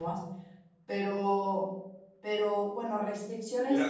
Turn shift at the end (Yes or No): Yes